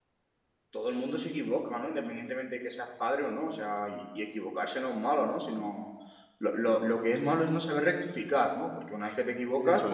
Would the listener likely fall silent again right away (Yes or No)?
Yes